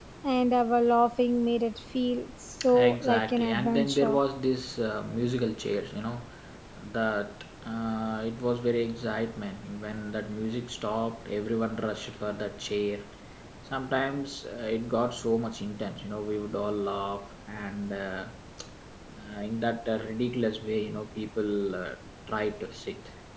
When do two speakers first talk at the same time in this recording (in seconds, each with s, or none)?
2.6 s